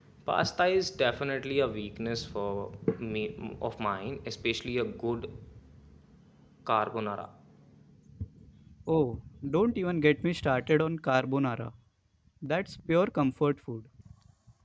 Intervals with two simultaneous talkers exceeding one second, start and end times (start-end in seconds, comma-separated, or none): none